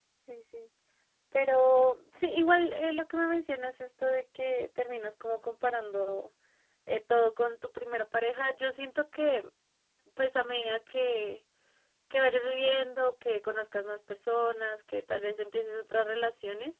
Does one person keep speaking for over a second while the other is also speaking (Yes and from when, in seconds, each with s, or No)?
No